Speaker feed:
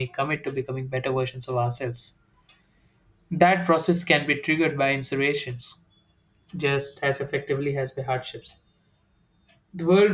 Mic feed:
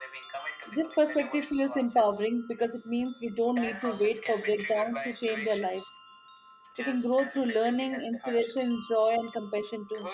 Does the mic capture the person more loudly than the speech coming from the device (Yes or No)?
Yes